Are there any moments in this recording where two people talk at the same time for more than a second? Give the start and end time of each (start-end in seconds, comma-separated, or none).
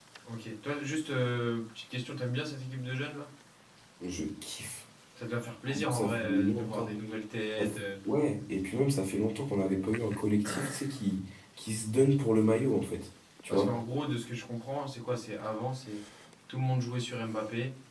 5.7-6.9